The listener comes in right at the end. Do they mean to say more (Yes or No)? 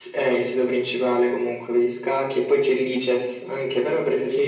No